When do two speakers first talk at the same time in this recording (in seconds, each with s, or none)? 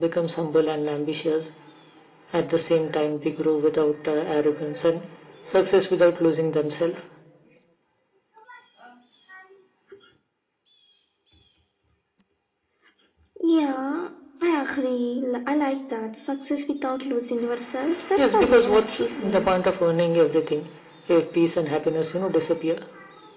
18.2 s